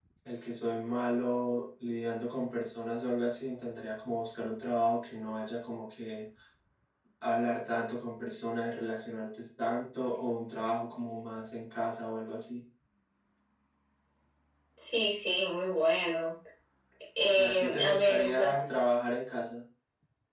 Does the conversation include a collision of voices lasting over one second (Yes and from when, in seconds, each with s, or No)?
Yes, from 17.2 s